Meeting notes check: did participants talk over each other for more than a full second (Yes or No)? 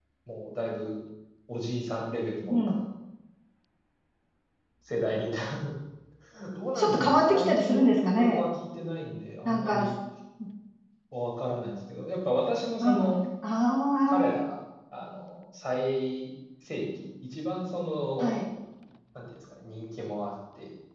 Yes